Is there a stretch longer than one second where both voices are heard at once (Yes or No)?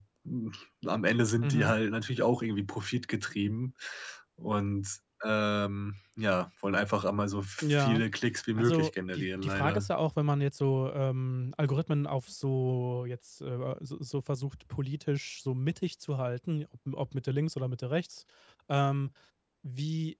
Yes